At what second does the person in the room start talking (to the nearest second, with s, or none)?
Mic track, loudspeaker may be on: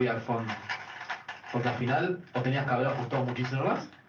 none